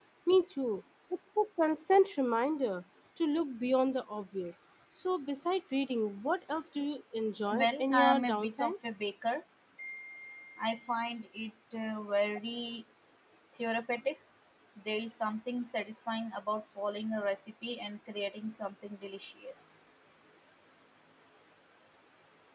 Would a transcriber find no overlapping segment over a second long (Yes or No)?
No